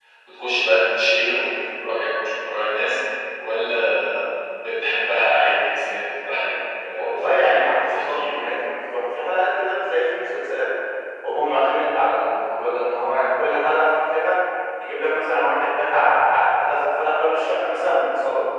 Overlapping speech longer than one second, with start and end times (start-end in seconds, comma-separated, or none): 6.9-8.5